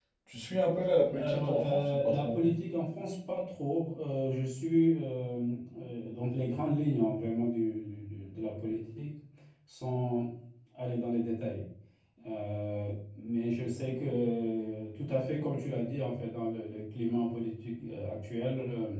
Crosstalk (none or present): present